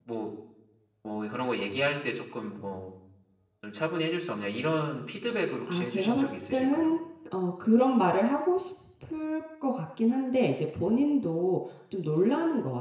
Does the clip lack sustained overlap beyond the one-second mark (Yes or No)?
No